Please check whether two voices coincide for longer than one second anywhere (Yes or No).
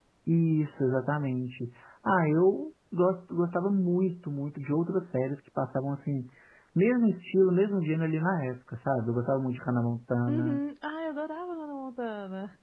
No